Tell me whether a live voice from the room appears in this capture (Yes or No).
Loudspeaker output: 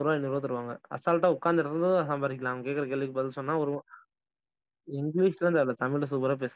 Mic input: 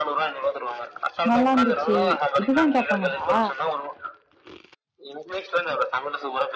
Yes